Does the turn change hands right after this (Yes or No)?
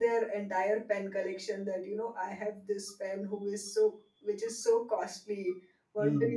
No